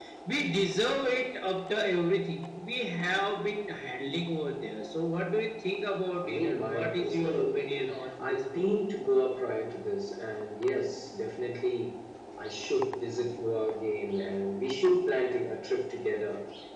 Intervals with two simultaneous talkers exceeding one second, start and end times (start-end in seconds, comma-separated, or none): 6.2-8.7